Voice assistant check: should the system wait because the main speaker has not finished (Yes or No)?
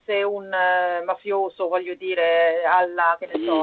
No